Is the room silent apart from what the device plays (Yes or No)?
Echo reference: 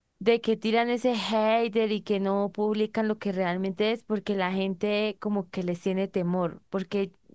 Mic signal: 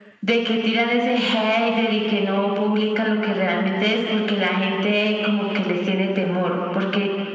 Yes